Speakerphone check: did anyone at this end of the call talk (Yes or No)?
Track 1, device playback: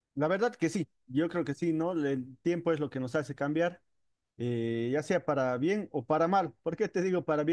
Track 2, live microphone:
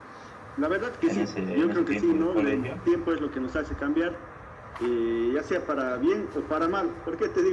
Yes